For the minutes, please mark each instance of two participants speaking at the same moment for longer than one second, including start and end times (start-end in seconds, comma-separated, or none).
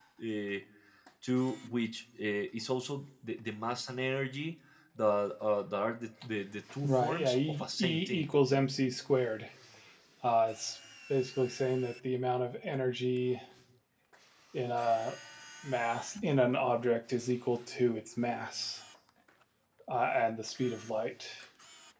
6.8-8.3